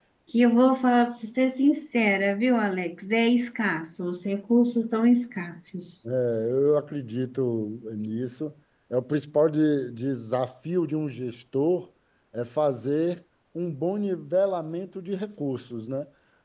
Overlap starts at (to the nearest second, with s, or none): none